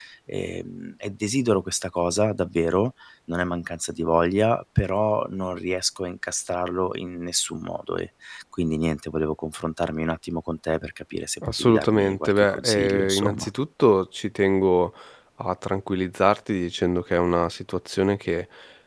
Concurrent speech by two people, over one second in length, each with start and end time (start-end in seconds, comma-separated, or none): 11.5-13.5